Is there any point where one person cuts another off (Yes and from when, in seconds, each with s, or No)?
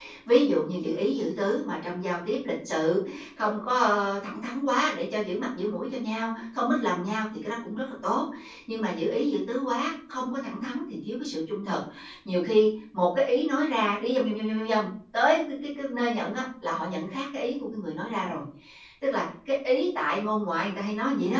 No